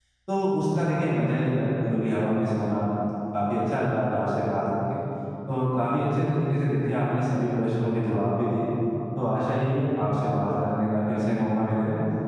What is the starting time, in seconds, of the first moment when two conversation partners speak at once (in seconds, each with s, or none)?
none